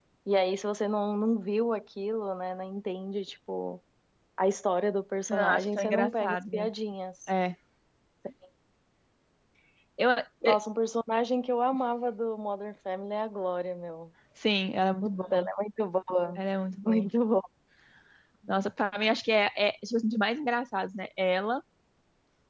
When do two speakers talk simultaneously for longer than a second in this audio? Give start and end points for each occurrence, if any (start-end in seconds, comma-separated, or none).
5.3-6.7